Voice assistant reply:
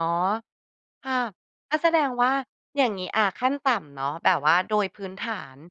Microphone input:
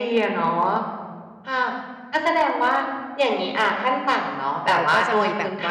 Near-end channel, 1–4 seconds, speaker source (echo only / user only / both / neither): echo only